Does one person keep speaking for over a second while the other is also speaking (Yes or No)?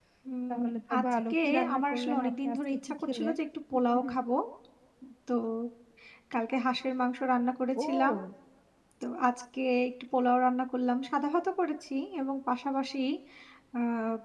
Yes